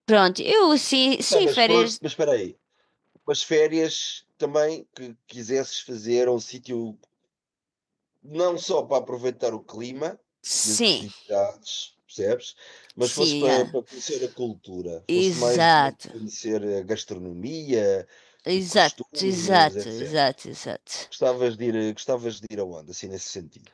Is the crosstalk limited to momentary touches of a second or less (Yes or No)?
No